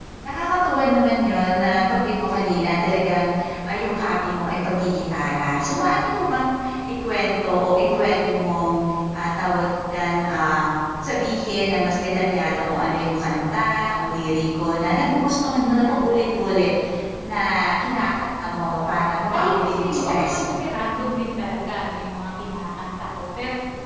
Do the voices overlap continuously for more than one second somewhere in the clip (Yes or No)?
Yes